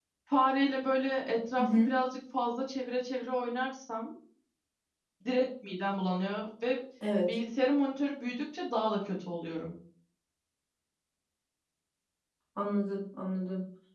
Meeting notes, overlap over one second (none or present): none